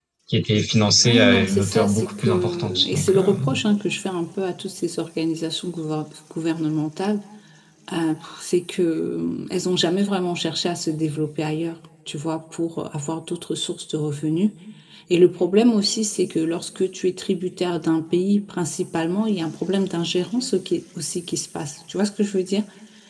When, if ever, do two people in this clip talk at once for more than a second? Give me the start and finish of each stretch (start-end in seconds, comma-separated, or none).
1.1-3.3